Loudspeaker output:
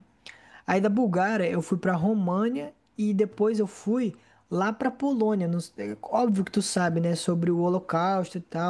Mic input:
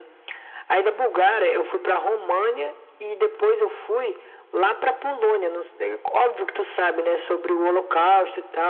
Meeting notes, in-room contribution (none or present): none